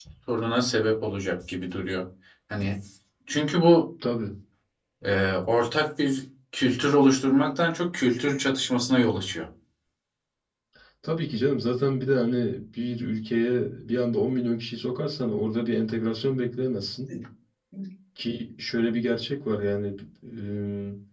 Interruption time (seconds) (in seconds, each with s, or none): none